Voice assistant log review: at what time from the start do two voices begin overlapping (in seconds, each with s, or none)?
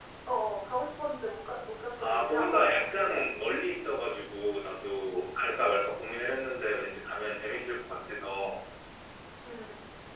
2.0 s